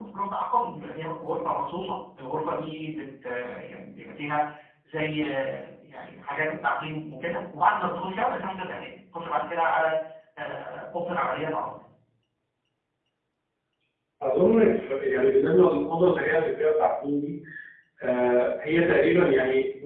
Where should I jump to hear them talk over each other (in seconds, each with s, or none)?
none